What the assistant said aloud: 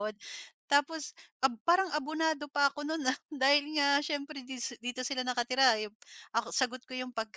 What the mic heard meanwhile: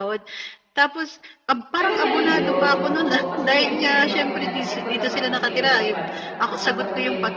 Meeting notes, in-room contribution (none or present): present